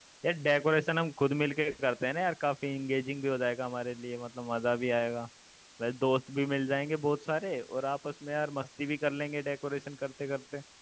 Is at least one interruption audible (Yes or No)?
No